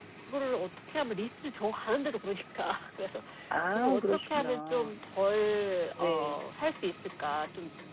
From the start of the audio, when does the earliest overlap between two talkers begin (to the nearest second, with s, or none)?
4 s